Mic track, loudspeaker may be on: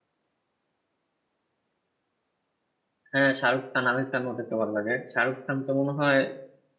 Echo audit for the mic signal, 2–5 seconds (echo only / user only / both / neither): user only